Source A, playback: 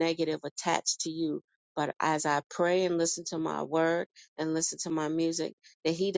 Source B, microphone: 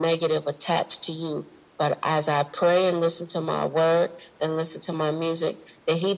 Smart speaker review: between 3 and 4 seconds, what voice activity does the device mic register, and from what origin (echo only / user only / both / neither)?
echo only